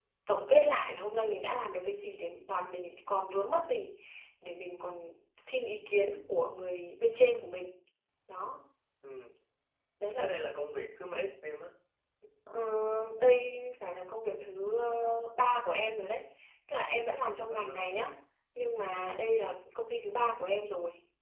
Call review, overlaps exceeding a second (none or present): none